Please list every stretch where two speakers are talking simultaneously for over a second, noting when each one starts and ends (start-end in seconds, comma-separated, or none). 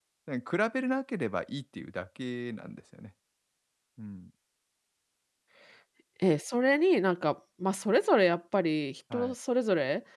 none